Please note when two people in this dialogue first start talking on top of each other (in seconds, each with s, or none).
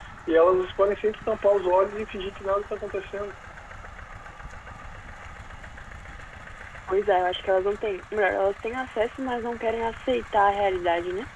none